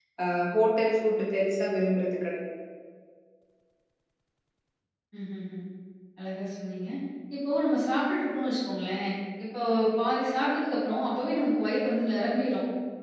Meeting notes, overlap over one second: none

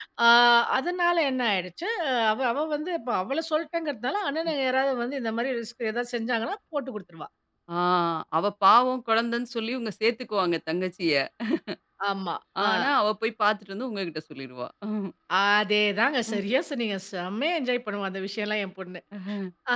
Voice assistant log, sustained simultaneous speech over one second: none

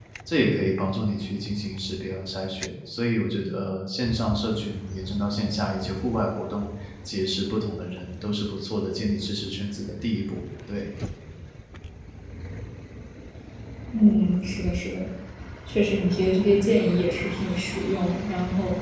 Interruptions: none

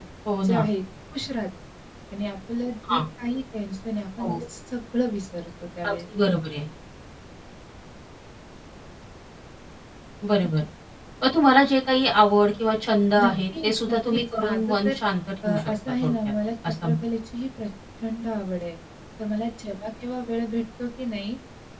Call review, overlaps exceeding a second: present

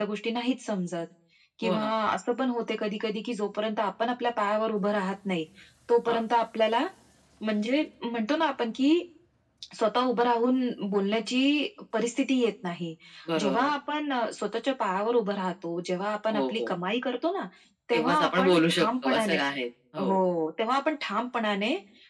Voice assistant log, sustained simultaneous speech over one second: present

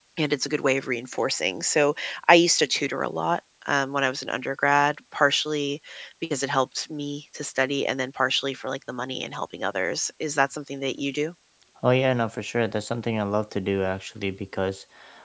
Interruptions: none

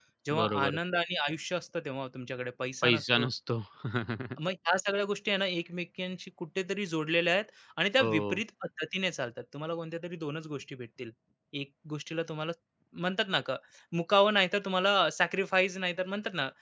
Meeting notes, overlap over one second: none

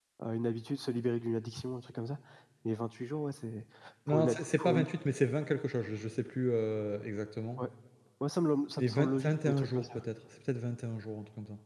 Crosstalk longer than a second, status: present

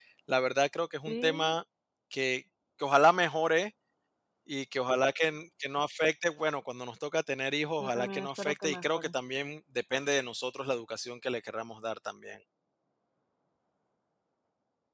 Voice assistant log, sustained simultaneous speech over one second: present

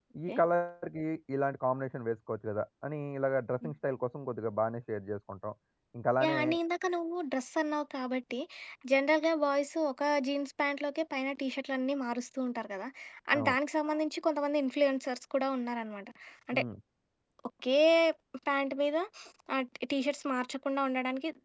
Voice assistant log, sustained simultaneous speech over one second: none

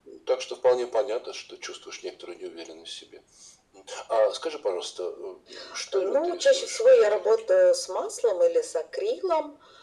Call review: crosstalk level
present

